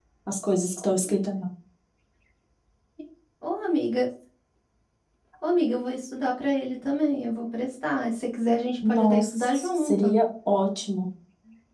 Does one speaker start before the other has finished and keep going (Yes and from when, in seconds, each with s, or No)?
Yes, from 8.8 s